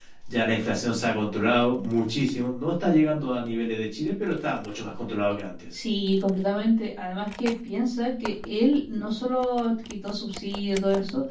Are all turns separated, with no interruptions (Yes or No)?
Yes